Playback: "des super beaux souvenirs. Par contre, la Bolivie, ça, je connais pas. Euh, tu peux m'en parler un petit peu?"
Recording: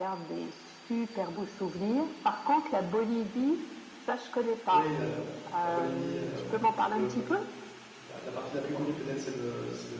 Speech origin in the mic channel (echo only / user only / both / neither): both